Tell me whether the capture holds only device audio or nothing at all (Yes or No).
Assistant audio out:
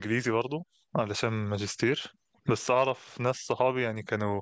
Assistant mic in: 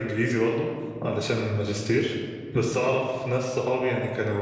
Yes